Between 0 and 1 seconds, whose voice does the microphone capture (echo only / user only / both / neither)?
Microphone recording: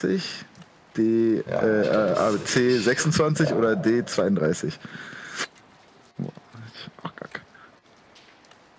echo only